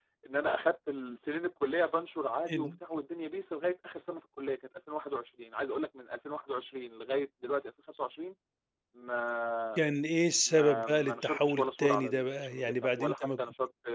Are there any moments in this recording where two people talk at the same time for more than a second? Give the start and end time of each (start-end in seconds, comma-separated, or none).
10.5-13.4